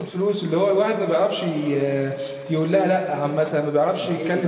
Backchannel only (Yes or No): Yes